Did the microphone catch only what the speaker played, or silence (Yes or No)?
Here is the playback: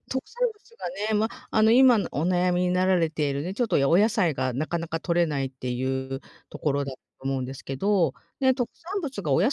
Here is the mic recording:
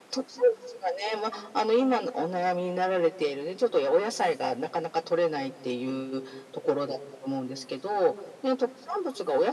Yes